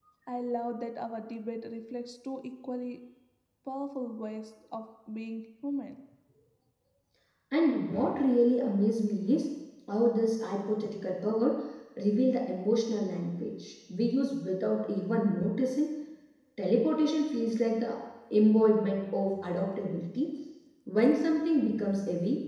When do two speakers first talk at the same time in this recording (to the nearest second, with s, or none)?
none